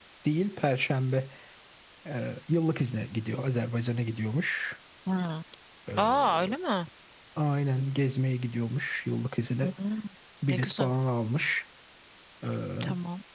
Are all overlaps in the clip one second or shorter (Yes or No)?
Yes